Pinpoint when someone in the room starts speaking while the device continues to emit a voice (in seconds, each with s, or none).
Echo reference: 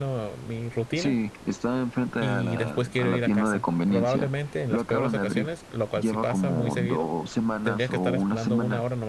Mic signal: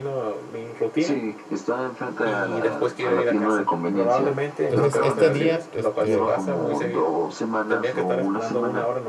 4.6 s